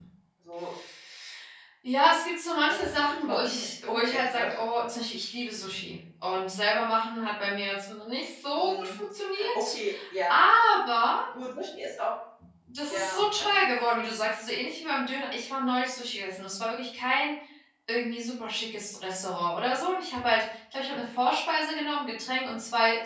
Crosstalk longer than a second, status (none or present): present